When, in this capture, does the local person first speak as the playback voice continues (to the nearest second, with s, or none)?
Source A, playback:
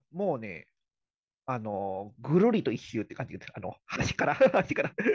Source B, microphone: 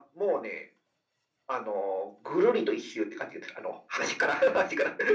none